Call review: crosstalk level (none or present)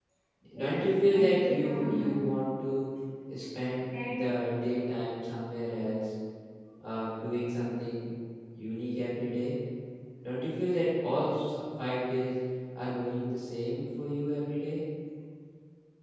present